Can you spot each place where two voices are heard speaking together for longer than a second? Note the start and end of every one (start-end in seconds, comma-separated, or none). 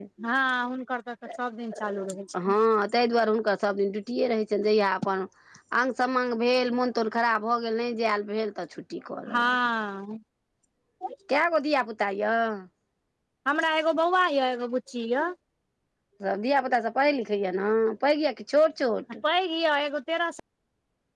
none